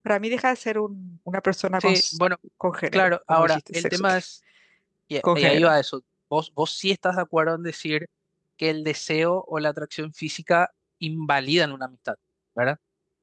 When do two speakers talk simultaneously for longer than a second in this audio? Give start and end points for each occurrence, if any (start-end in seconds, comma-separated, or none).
2.9-4.2